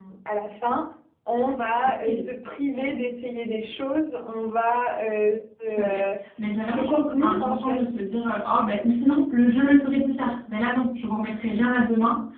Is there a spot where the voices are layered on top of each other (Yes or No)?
Yes